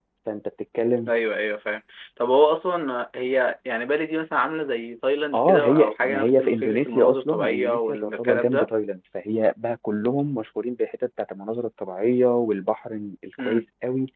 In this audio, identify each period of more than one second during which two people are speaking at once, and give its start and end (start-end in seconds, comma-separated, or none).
5.3-8.7